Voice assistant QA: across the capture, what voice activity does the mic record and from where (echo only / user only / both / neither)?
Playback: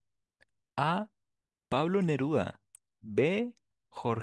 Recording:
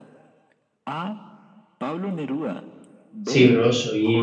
both